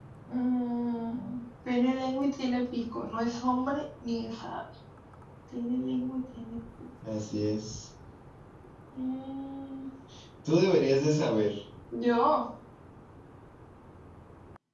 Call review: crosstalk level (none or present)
none